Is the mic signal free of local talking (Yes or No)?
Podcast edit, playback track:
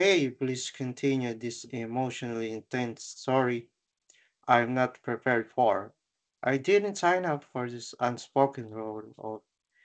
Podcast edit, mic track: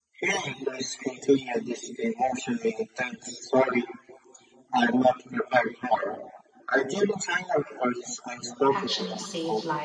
No